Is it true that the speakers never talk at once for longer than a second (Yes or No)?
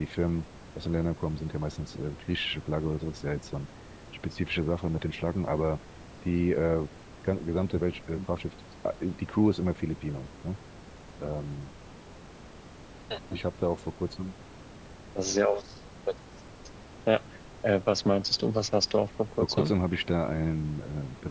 Yes